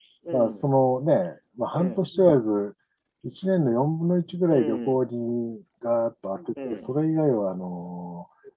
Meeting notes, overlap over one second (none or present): none